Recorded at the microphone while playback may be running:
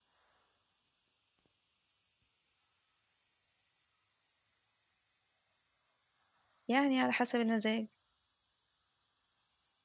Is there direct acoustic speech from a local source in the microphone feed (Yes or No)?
Yes